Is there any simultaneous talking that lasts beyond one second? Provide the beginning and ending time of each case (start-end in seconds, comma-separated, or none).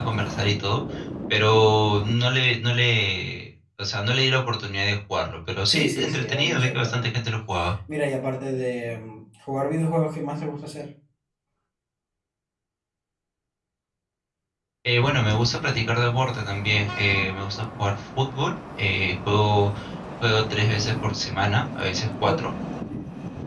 5.7-7.1